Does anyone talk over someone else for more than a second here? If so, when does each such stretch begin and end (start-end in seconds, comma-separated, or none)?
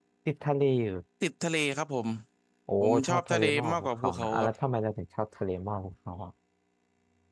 2.8-4.5